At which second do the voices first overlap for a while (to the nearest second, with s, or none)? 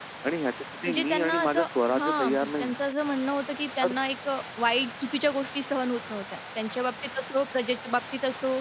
1 s